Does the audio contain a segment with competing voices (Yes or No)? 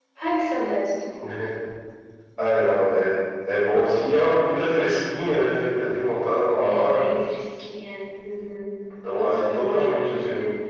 Yes